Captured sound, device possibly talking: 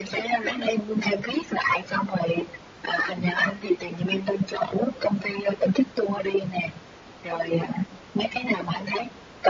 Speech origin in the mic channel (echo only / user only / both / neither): echo only